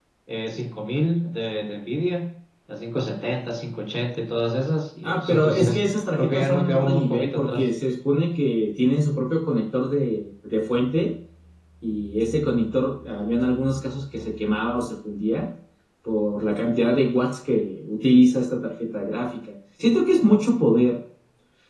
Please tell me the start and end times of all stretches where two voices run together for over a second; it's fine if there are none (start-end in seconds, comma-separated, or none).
5.0-7.7